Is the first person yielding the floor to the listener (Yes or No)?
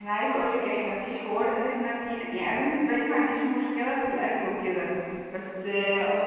No